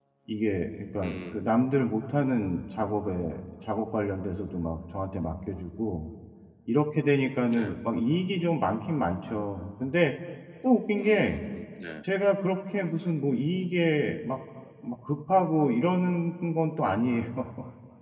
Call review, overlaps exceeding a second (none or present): none